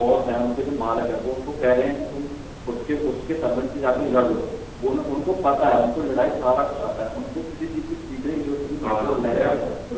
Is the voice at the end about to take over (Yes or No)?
Yes